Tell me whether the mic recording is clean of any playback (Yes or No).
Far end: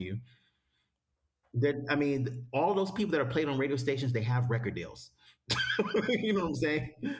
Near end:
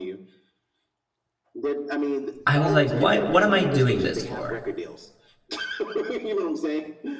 No